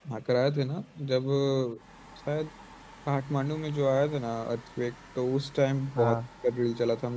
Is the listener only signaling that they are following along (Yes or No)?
Yes